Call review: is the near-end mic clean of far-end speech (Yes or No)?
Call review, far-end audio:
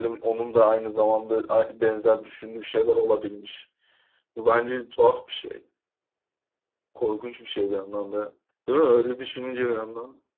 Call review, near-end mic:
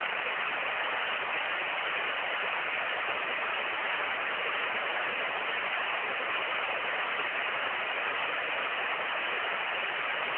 Yes